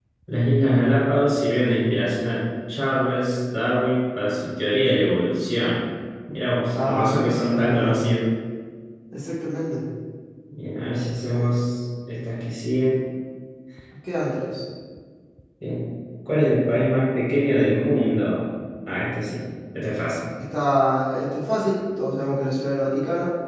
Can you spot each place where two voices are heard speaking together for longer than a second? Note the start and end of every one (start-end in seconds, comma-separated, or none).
6.7-8.0